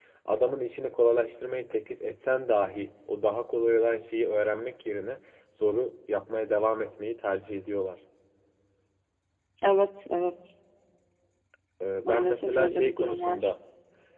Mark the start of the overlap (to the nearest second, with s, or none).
12 s